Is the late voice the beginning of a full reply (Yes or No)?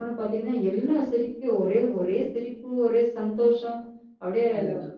No